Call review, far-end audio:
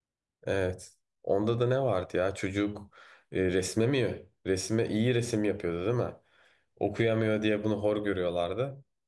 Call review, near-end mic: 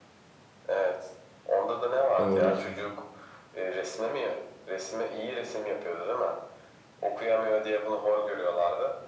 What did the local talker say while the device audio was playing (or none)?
doğru.